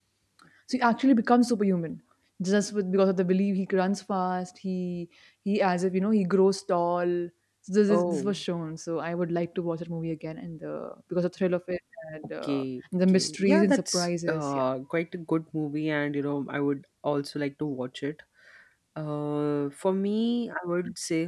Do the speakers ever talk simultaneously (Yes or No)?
Yes